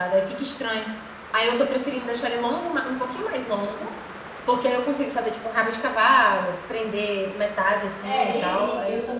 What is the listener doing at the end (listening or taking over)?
taking over